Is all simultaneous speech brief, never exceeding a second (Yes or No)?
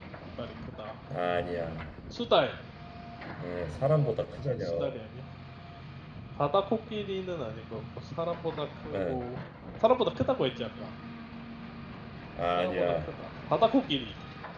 Yes